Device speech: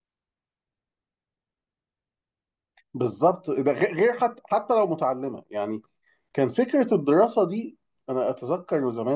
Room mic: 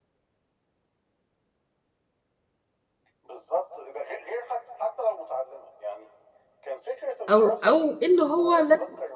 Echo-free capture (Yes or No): No